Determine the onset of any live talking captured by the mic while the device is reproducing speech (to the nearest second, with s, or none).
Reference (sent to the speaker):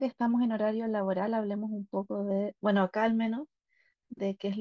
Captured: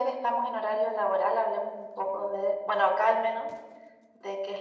none